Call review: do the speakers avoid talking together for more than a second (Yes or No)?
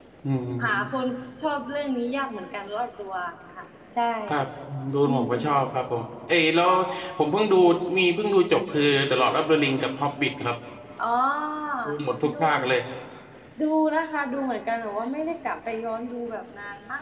Yes